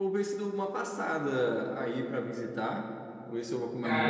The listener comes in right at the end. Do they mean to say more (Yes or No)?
Yes